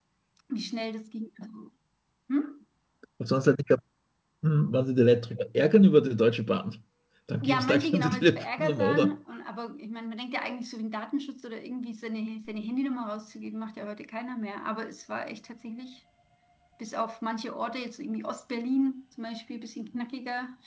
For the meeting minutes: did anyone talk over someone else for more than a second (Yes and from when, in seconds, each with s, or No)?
Yes, from 7.4 s